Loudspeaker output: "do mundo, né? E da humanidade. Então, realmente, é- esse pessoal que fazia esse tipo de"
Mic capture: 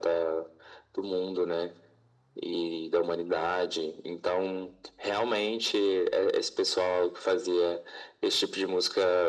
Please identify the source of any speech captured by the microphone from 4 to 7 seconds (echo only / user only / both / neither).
echo only